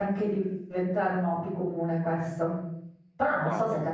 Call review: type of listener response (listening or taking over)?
listening